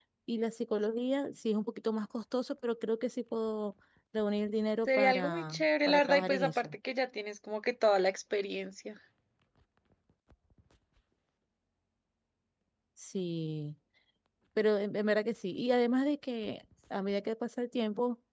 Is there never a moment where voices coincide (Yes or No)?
No